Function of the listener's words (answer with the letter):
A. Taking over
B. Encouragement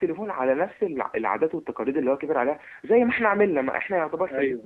B